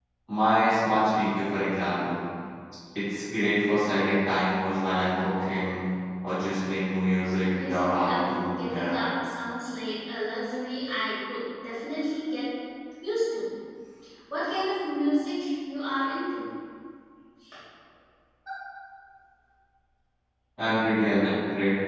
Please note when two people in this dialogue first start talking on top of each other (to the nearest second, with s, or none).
8 s